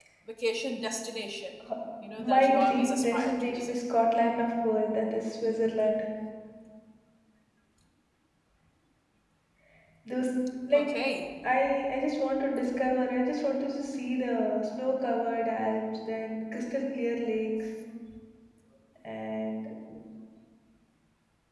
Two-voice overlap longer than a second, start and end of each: 2.2-3.7

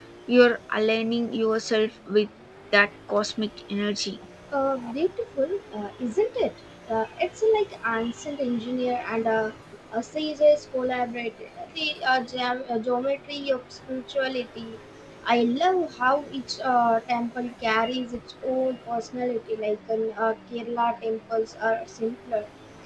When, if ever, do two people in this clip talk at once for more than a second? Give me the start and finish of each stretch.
none

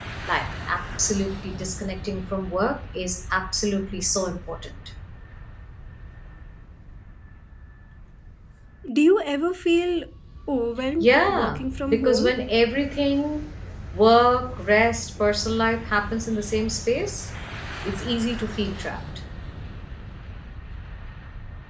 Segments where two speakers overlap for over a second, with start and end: 11.0-12.3

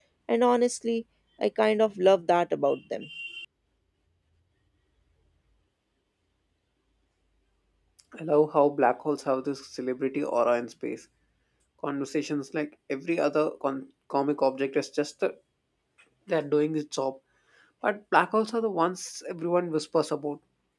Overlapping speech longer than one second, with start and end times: none

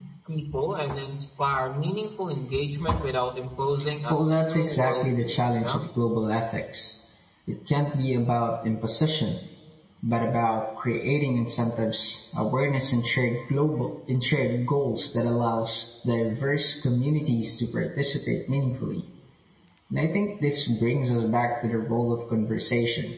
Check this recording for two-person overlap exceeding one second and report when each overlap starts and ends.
4.1-5.8

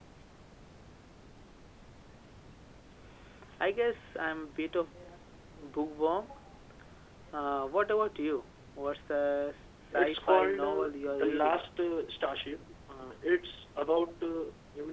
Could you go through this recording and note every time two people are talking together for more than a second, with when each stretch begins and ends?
9.9-11.6

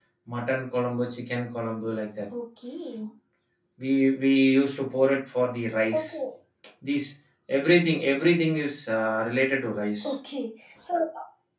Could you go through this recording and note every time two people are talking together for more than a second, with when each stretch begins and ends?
none

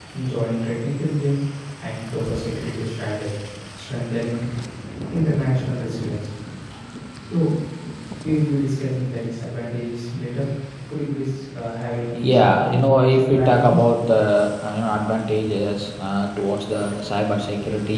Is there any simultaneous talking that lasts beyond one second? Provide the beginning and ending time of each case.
12.3-13.8

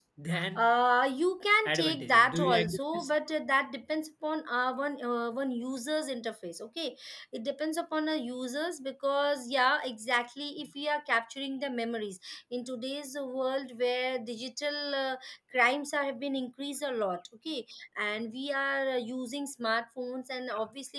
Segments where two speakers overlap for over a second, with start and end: 1.8-3.1

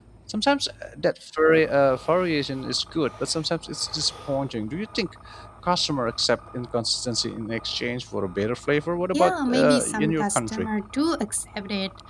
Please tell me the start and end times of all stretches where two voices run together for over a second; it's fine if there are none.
9.1-10.7

